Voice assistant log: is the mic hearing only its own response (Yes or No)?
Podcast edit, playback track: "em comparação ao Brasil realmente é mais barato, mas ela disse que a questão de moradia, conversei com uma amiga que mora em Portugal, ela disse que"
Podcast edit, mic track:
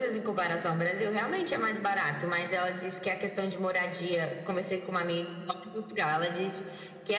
Yes